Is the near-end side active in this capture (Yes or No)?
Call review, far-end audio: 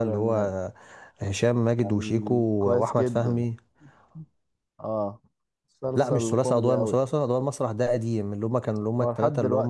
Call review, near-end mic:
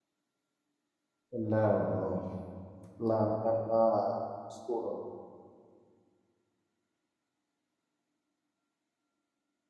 Yes